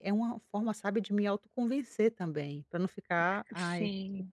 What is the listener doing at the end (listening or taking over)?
listening